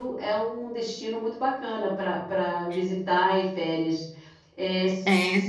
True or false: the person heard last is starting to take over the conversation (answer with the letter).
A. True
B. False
B